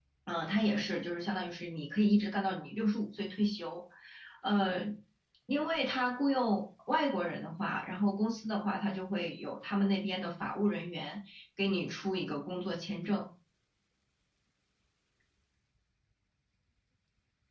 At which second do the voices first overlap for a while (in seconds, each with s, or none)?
none